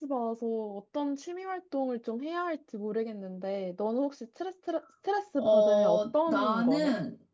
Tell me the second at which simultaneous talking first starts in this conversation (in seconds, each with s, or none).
5.4 s